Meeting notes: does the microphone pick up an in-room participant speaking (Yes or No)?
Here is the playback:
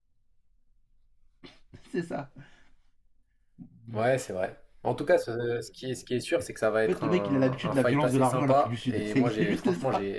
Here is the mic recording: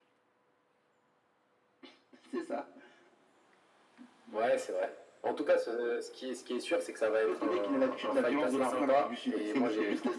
No